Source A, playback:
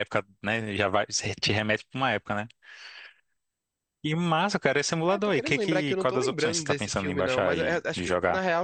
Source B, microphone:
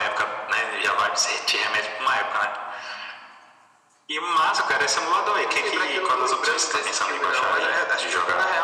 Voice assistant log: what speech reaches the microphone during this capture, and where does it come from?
echo only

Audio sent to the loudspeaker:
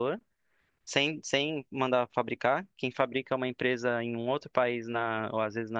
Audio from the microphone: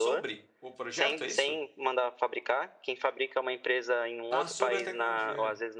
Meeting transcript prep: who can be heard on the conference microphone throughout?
both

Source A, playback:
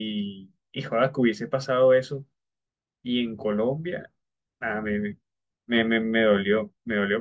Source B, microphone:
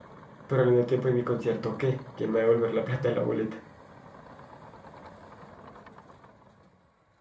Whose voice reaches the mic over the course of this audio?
user only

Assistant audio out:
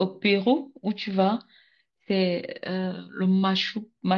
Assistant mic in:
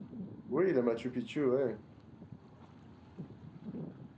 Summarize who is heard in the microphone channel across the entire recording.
user only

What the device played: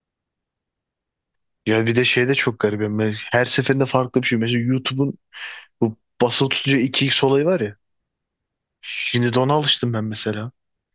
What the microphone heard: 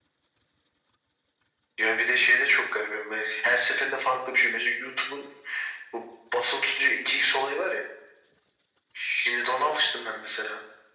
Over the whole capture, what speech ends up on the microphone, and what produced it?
echo only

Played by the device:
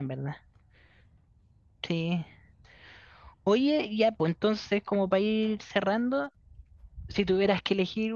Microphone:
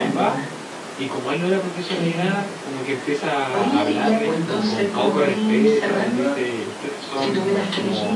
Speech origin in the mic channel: both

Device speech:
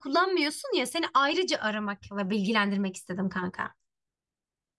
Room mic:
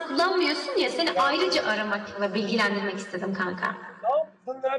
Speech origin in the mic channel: both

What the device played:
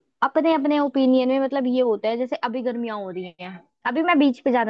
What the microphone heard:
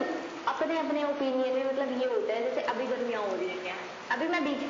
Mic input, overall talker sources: echo only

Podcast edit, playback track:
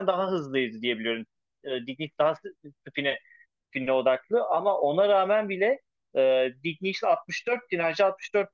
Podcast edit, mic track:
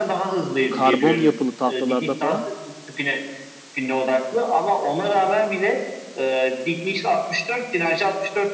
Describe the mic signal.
both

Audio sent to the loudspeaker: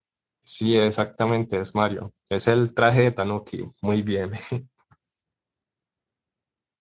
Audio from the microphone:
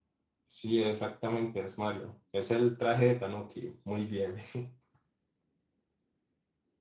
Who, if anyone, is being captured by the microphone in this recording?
echo only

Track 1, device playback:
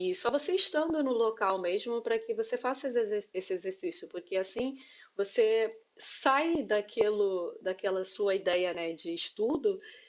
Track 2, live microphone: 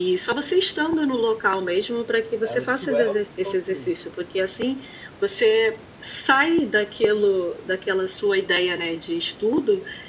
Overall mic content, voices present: both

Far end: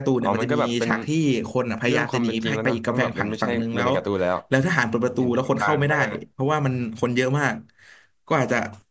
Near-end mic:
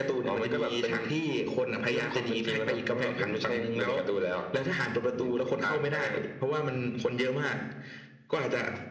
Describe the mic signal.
echo only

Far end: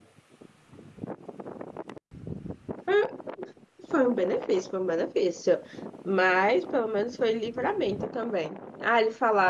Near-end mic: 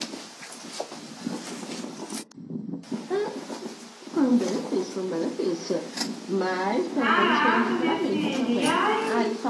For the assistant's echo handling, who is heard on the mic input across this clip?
both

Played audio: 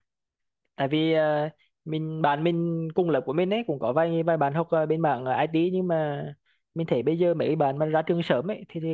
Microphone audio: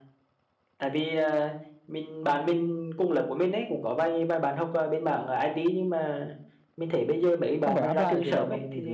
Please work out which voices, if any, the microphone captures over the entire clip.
both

